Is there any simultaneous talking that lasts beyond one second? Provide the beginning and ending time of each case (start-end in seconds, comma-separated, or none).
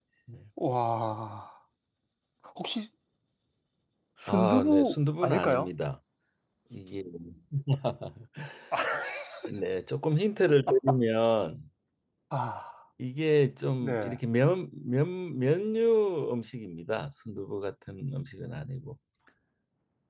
4.3-5.7